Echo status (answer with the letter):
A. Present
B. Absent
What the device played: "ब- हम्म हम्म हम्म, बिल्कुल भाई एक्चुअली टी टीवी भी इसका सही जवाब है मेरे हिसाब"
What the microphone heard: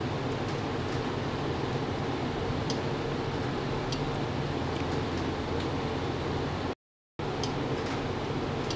B